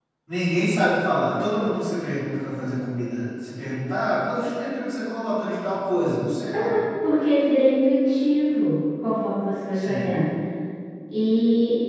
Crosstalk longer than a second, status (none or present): none